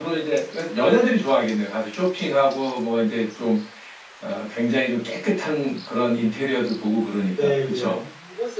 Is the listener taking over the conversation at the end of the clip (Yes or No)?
Yes